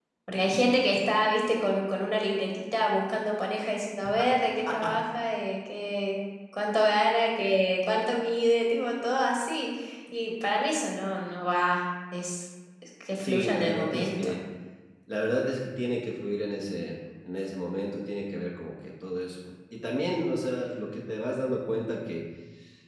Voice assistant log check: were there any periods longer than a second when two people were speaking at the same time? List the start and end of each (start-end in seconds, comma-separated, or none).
13.2-14.4